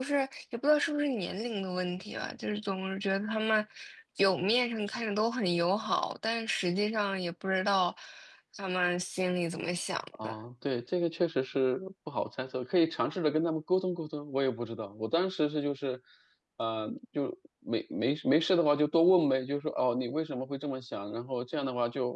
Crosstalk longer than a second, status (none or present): none